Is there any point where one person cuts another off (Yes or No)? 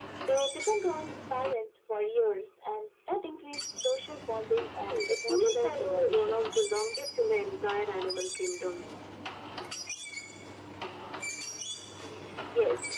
Yes